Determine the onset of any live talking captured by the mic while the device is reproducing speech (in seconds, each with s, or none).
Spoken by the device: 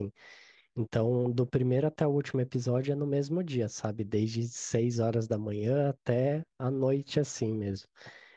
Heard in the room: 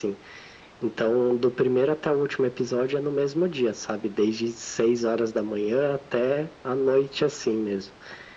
none